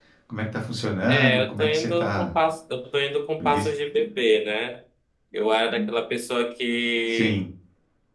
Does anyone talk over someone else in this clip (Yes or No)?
Yes